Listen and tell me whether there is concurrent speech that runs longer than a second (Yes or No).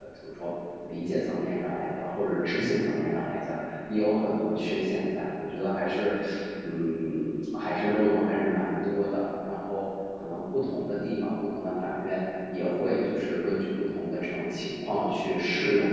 No